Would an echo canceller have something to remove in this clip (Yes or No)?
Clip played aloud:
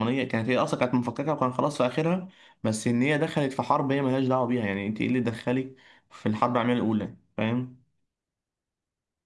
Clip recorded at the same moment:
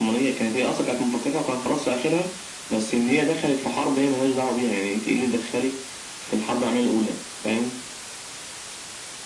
Yes